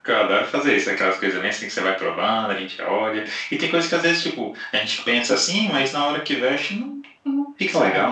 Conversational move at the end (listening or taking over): taking over